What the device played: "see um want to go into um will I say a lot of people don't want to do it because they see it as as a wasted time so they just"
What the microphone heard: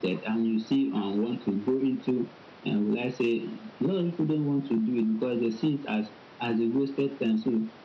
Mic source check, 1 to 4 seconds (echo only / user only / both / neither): echo only